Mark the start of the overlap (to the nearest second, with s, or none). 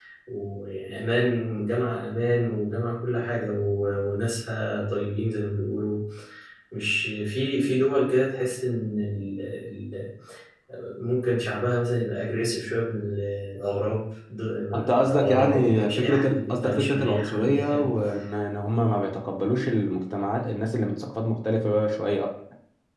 15 s